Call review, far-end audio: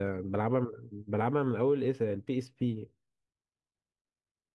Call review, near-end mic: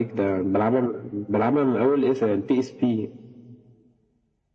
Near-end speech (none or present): none